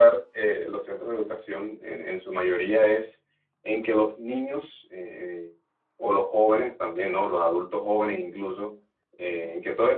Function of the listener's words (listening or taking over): listening